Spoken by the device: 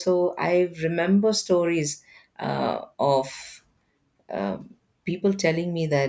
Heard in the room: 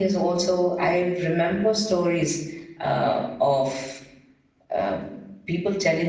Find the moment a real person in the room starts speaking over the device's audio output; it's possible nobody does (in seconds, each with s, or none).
none